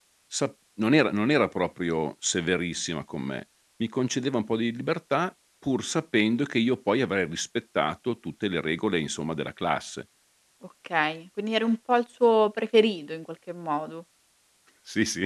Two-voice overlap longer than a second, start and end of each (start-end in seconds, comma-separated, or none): none